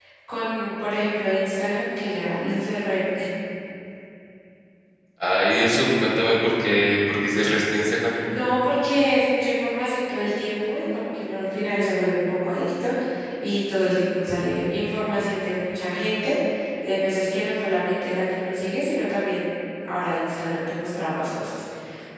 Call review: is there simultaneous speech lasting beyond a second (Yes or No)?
No